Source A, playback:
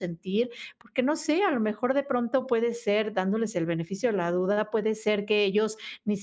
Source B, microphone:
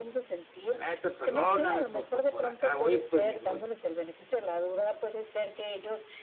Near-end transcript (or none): la neta, perdóname por por por acá. Oye, pues me dice: "Oy